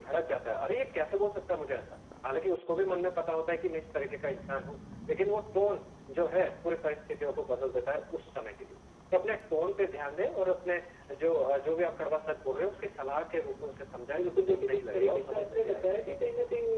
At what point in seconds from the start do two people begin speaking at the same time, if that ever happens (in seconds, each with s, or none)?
14.1 s